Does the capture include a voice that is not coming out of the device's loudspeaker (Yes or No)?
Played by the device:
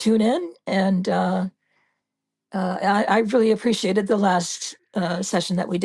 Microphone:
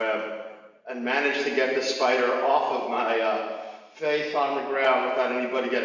Yes